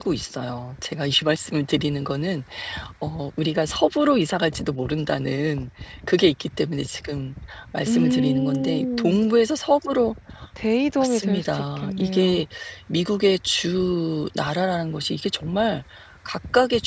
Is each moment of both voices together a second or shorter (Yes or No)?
No